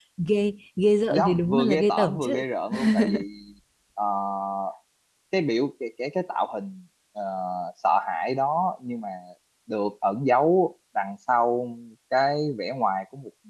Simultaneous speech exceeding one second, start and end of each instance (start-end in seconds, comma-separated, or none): 1.2-2.4